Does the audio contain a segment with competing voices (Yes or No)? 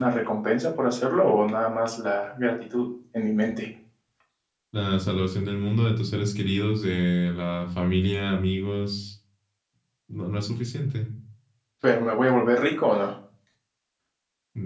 No